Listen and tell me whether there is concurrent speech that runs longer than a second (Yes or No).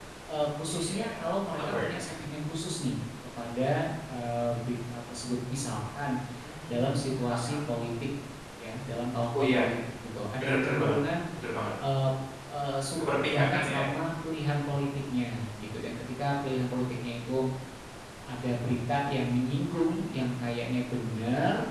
Yes